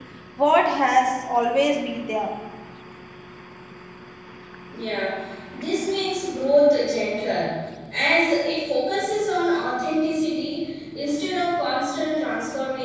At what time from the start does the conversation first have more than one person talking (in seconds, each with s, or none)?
none